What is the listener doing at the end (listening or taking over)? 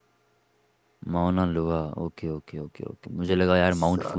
listening